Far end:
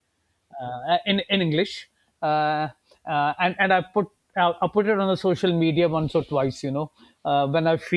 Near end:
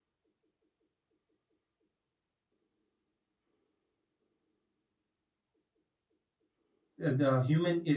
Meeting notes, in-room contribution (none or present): present